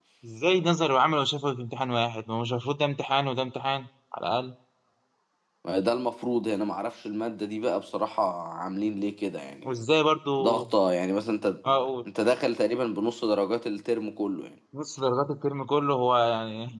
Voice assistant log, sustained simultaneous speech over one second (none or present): none